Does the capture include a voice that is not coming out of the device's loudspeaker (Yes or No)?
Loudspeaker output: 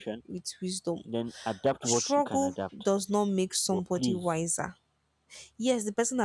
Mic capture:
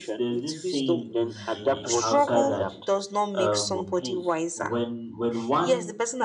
Yes